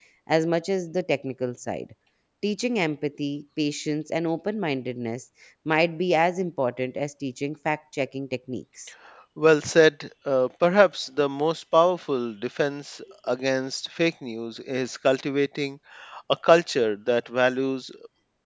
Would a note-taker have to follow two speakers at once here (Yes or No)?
No